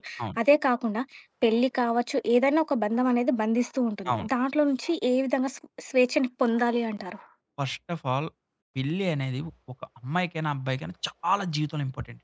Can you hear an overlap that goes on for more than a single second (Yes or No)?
No